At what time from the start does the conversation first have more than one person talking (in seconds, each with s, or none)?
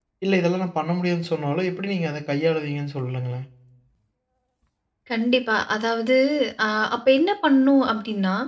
none